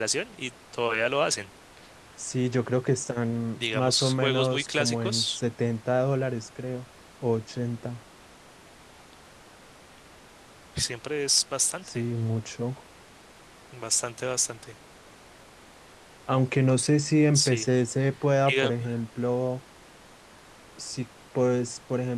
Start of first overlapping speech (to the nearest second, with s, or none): 4 s